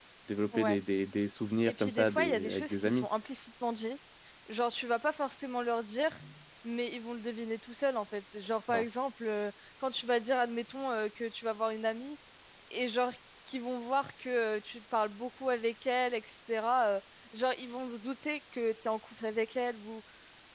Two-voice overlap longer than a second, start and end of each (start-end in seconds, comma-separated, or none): 1.6-3.1